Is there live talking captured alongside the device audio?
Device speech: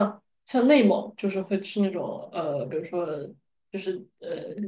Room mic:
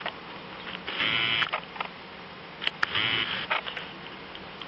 No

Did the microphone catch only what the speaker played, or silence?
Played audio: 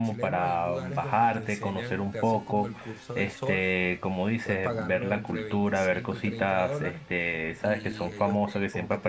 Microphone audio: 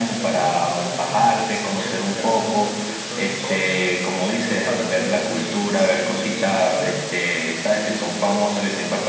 Yes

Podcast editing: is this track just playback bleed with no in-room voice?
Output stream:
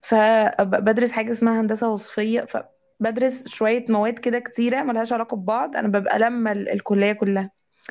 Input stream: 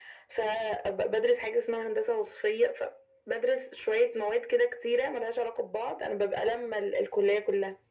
Yes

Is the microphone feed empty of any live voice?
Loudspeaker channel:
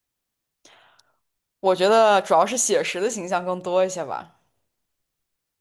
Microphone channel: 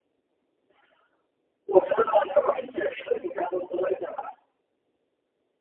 Yes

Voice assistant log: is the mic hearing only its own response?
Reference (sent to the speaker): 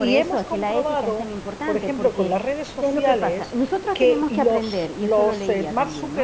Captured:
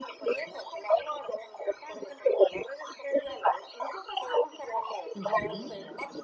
No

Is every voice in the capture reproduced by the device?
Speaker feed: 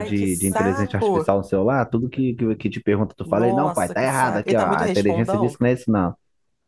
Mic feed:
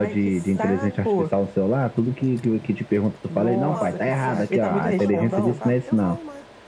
No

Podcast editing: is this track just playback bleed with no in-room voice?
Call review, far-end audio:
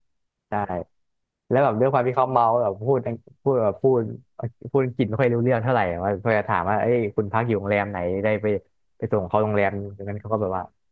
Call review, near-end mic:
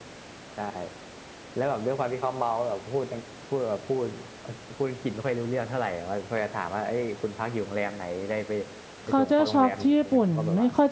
No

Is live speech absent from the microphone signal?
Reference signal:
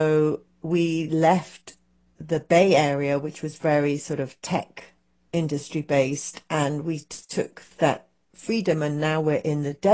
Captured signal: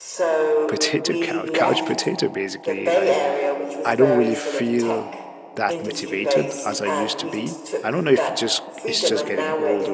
No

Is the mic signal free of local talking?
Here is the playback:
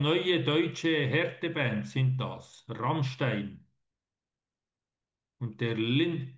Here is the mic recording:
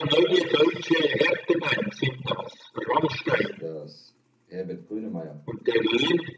No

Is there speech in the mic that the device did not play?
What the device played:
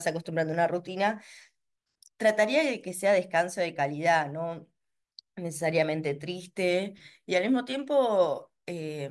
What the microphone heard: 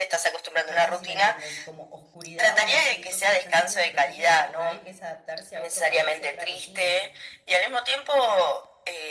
Yes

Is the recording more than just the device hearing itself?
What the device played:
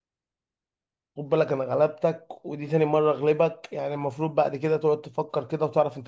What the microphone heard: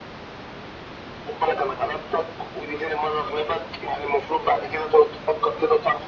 No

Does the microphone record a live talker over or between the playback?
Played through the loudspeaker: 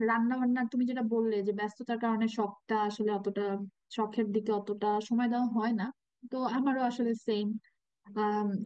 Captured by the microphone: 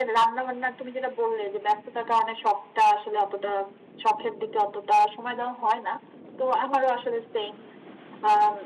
No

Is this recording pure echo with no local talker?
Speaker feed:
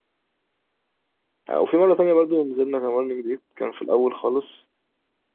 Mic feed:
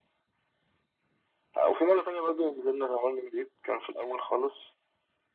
Yes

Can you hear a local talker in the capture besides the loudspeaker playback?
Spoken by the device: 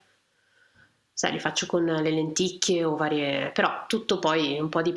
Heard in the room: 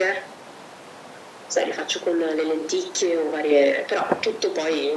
No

